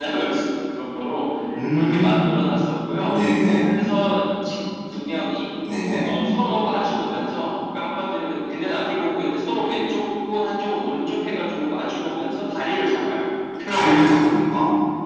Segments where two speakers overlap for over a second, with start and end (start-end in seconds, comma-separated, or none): none